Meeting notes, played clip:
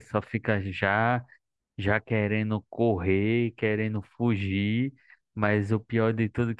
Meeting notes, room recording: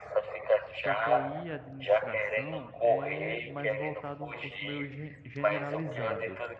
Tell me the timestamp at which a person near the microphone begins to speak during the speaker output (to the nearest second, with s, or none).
1 s